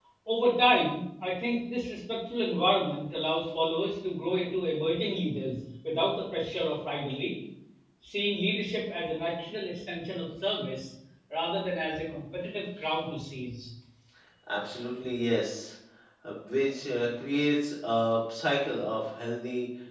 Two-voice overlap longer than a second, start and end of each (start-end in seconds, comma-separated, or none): none